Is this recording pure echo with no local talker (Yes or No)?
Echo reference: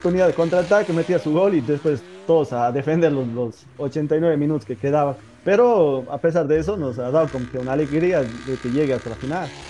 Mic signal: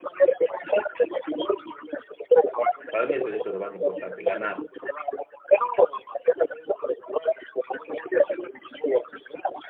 No